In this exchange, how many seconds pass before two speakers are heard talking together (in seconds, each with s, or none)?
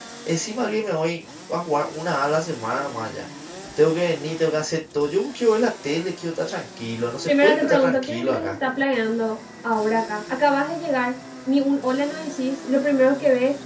7.3 s